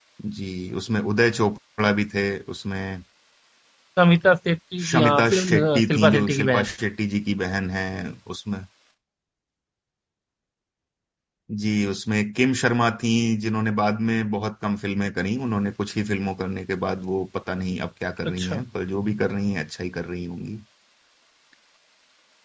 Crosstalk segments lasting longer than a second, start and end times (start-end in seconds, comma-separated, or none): 4.9-6.7